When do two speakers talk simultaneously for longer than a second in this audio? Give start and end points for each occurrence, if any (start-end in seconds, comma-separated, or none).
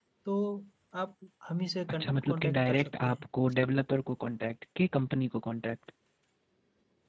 1.9-3.2